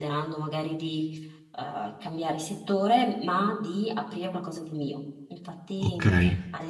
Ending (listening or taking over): listening